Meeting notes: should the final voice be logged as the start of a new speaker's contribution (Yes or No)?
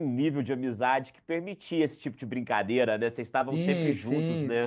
Yes